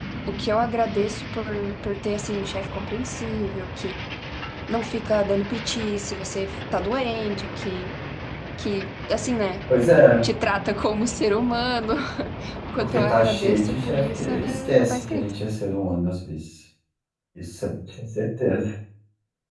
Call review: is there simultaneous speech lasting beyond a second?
Yes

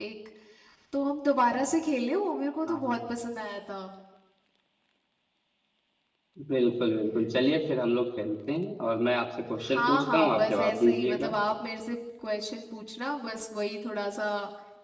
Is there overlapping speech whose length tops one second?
Yes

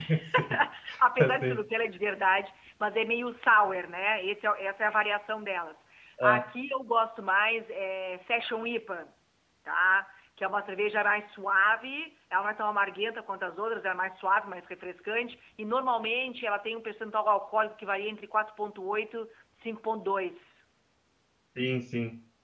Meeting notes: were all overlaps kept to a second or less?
Yes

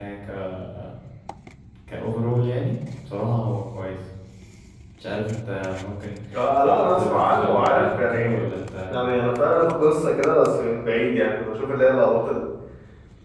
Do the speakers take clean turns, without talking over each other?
No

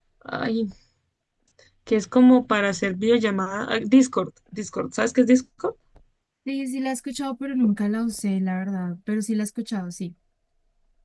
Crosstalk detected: No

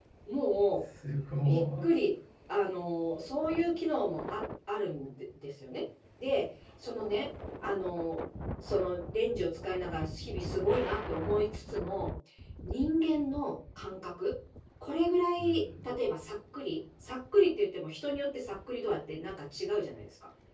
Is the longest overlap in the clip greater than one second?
No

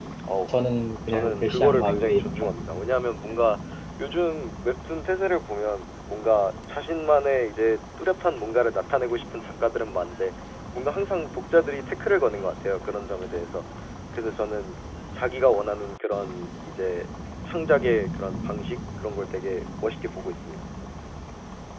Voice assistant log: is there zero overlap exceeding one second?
No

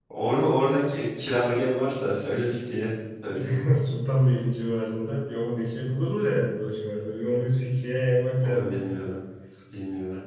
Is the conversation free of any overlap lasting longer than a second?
Yes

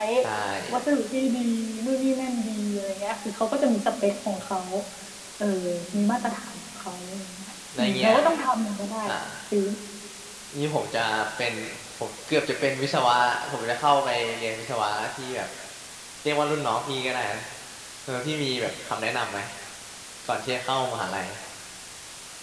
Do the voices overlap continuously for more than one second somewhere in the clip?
No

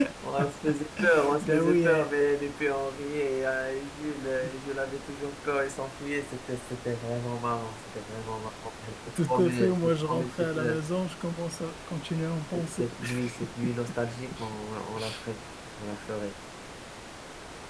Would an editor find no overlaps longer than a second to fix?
No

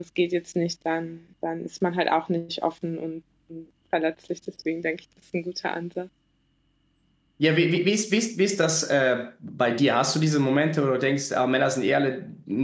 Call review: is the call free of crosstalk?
Yes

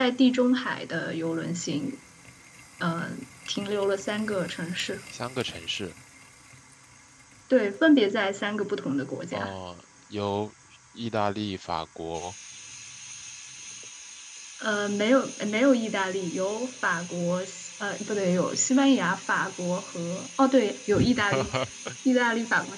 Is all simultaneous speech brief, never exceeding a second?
Yes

